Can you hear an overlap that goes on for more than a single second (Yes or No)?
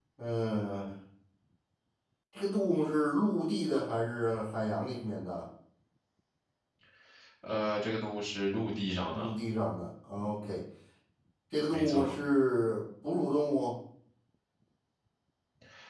No